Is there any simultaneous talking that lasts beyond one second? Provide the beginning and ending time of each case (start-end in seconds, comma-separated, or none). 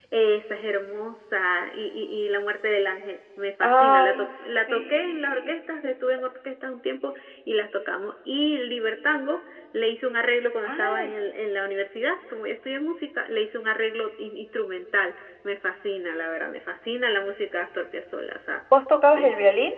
3.6-5.5